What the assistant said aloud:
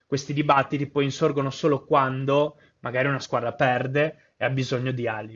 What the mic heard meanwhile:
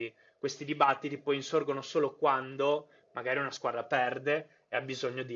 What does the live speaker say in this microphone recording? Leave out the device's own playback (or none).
none